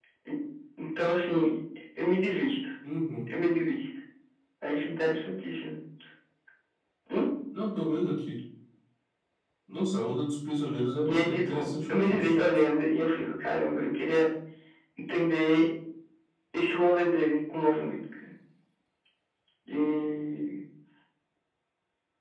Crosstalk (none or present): present